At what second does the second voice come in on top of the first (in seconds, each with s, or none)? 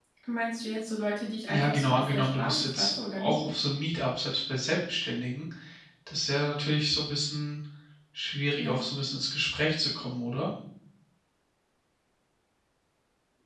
1.5 s